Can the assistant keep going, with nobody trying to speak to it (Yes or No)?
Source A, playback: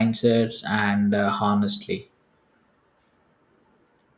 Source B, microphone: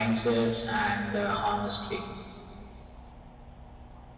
Yes